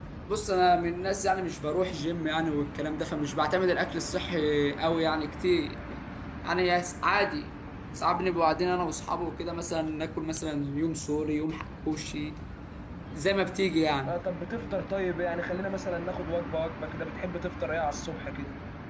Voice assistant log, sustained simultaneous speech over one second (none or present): none